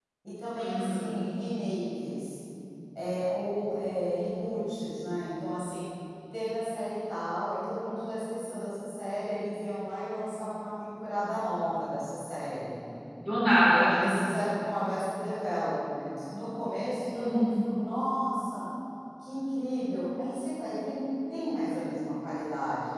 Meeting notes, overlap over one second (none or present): none